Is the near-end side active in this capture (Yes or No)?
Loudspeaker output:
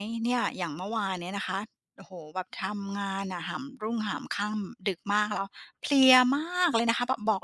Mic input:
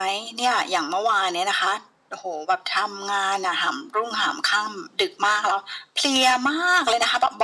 No